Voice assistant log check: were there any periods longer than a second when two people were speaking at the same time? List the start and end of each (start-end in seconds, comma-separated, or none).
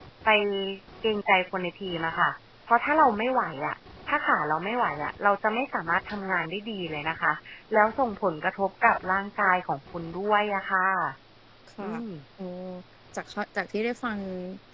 none